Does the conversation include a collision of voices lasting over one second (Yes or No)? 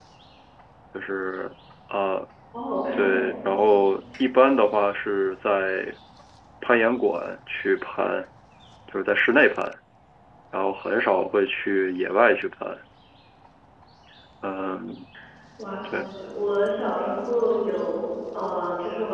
No